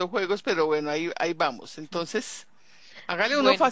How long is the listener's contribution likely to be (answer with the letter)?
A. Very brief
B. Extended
A